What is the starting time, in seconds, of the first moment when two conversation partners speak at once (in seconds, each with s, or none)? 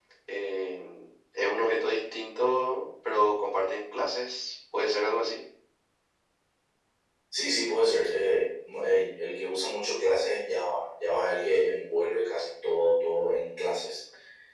none